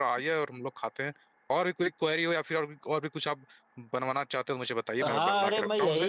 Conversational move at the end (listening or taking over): taking over